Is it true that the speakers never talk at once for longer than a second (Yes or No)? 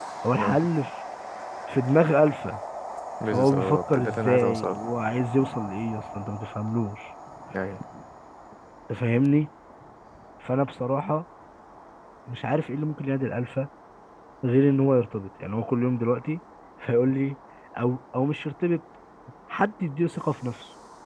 No